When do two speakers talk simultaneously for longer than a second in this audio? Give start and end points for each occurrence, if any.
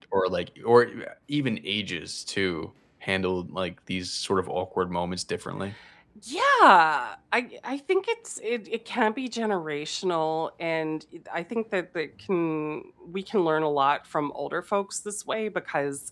none

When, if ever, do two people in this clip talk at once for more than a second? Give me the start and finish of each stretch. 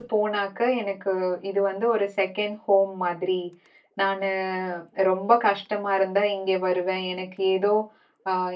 none

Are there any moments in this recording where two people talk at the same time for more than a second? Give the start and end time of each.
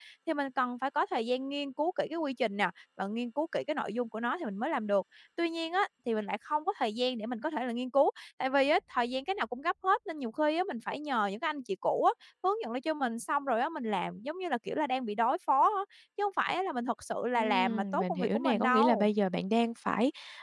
17.4-19.1

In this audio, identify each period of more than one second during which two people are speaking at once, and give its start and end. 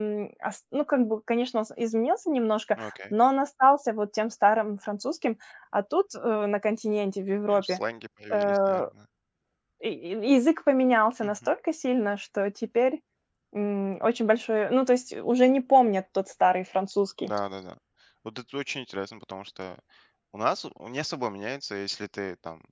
none

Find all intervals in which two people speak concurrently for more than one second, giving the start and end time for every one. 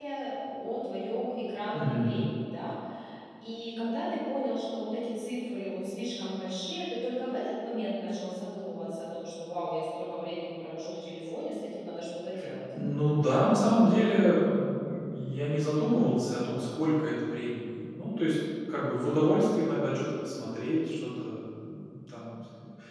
none

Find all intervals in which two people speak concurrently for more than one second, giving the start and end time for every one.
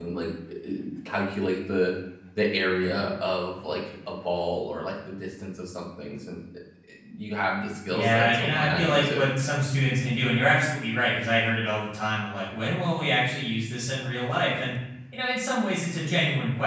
7.9-9.2

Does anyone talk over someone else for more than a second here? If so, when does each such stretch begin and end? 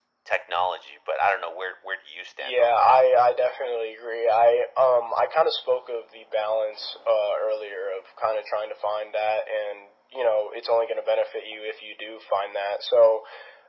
none

